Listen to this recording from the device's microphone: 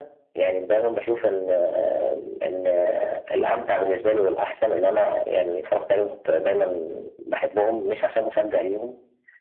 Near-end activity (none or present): none